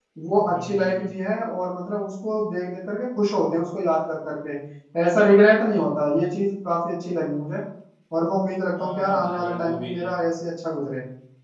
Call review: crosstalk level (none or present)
present